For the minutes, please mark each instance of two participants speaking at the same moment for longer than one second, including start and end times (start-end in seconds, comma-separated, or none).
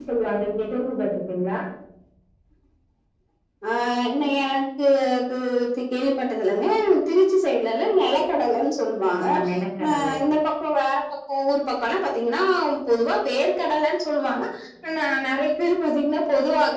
none